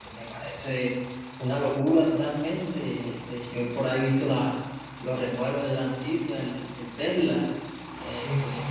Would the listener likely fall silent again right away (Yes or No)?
Yes